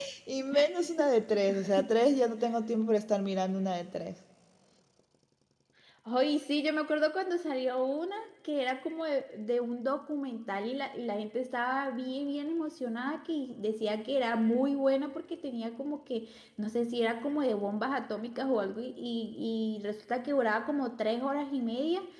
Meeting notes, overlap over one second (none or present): none